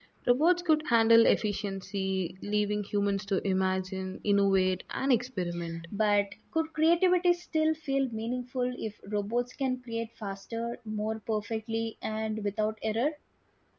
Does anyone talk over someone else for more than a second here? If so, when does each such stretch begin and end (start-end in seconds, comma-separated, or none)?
none